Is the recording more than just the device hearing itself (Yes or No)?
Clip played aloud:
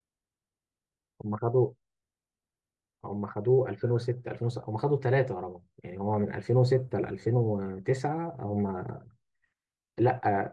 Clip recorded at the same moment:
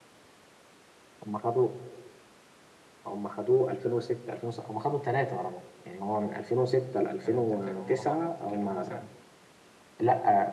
Yes